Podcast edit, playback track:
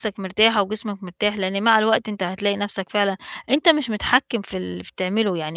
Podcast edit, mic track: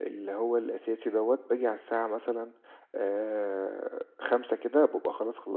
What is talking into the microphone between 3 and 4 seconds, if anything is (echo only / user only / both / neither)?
user only